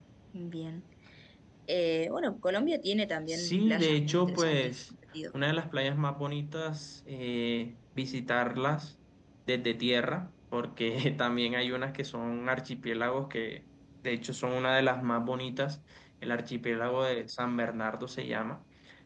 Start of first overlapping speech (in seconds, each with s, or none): 3.3 s